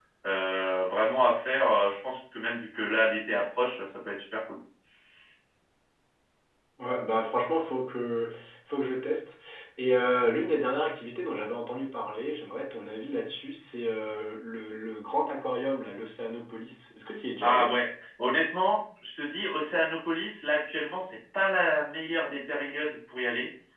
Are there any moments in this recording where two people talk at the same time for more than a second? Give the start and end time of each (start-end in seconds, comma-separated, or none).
none